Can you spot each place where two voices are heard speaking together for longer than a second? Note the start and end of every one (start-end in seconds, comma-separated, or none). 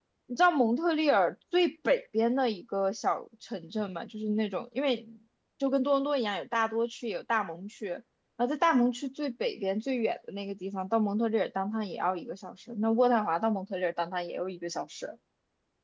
none